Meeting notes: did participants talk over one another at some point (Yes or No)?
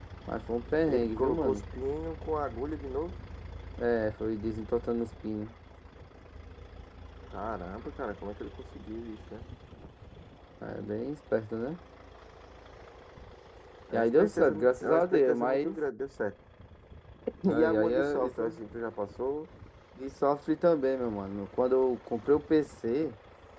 Yes